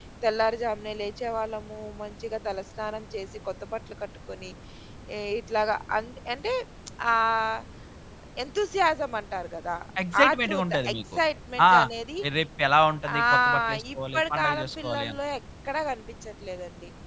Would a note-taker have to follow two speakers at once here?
Yes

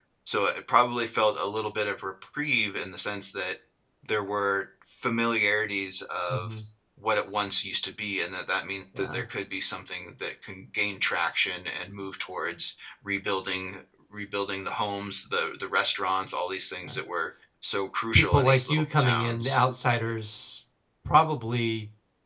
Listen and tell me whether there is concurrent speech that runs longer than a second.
Yes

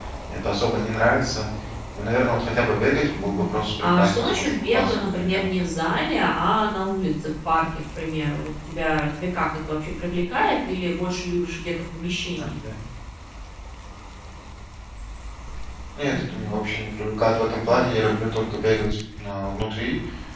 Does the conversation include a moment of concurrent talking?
Yes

